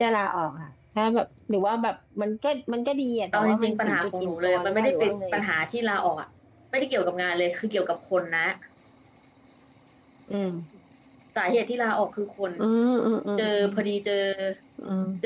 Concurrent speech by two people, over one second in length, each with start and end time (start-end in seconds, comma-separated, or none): 3.3-5.2